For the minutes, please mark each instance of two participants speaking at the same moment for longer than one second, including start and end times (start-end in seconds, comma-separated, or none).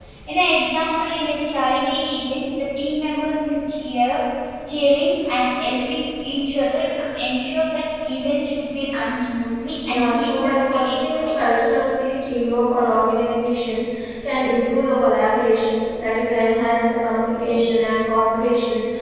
9.9-11.3